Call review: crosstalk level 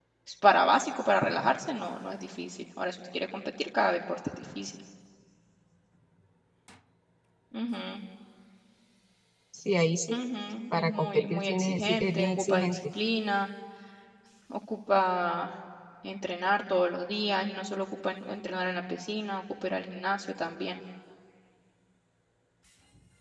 present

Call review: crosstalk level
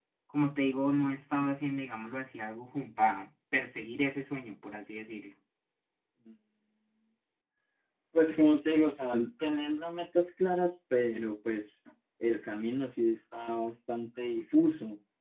none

